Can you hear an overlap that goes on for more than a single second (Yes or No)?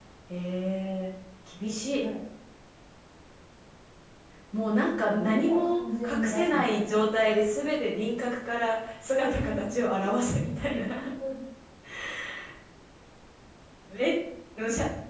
Yes